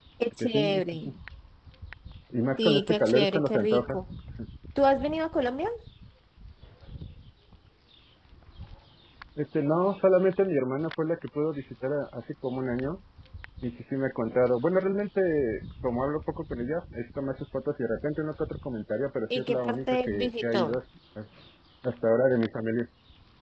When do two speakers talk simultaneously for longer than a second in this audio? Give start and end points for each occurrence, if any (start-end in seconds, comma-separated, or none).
2.6-4.0, 19.4-20.8